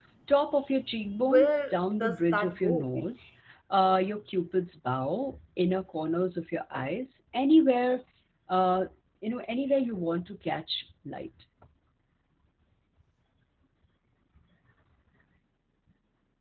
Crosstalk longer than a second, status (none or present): present